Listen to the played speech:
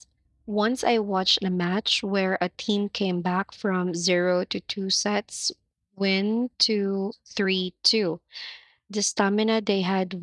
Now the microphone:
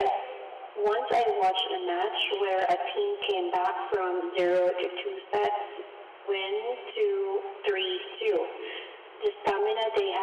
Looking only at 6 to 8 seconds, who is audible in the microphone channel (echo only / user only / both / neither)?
echo only